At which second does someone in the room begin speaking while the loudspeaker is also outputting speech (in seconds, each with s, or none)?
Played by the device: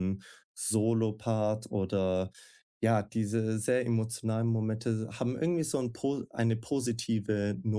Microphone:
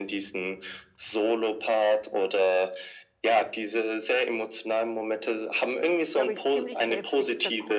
6.1 s